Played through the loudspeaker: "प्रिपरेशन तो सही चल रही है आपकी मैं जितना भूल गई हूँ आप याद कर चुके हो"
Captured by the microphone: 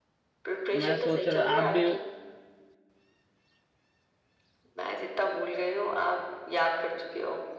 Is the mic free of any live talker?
No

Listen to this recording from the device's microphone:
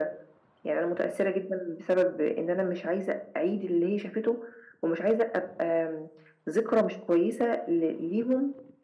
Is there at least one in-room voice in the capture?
No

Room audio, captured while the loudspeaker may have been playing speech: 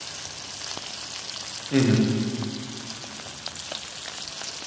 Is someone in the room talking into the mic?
Yes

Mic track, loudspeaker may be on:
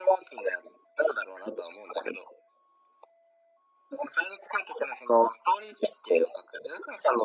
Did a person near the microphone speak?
No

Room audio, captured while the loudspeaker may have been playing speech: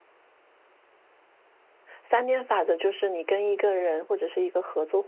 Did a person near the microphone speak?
Yes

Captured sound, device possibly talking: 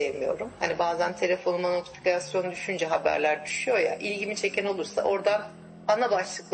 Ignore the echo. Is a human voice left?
No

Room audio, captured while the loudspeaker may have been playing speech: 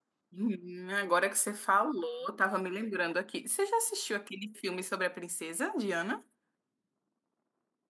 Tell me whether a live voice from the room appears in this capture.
Yes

